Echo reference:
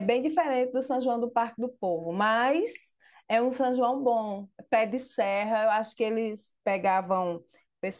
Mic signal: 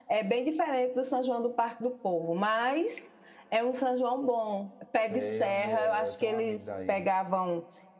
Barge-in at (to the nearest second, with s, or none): 5 s